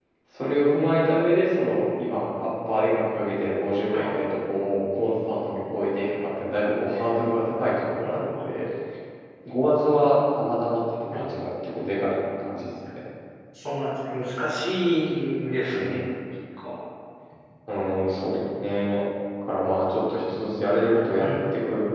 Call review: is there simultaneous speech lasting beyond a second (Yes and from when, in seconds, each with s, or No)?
No